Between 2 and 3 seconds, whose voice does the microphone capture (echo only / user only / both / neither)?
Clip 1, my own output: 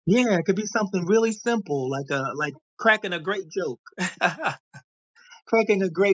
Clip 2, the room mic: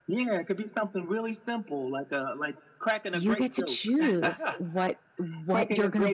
echo only